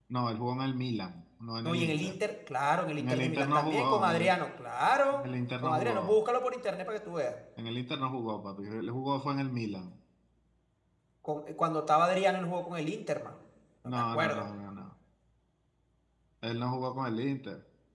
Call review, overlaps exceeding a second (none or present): present